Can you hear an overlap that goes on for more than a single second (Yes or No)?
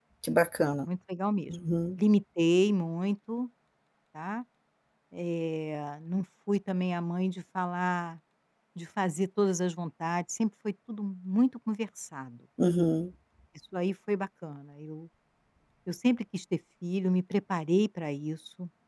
No